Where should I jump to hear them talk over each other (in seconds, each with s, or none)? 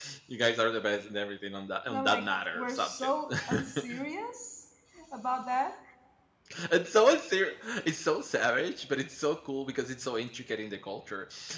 1.9 s